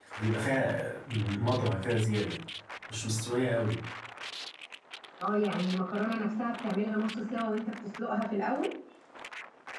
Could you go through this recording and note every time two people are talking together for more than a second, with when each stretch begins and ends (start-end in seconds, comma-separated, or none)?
none